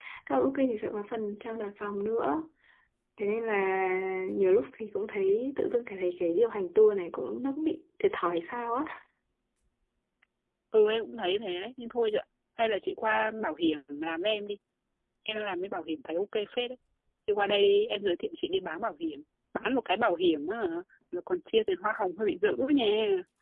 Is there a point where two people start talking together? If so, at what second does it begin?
none

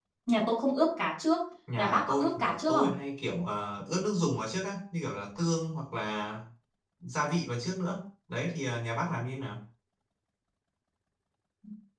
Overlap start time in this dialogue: 1.7 s

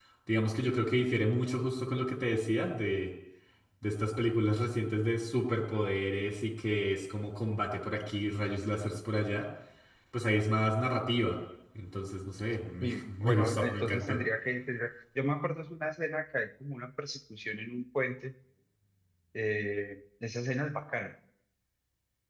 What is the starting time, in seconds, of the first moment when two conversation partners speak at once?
12.8 s

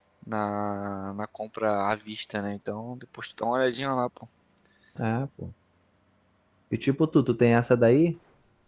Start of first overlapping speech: none

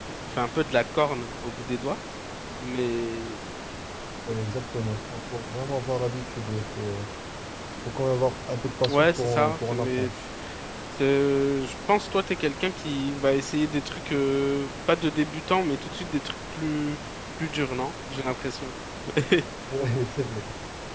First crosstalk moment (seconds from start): 8.8 s

